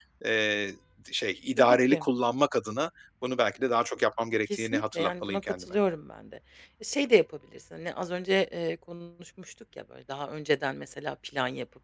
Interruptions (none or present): present